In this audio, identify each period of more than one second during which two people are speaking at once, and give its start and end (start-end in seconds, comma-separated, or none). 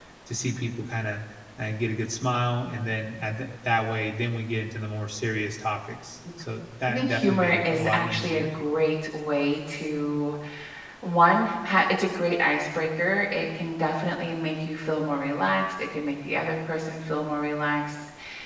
6.9-8.5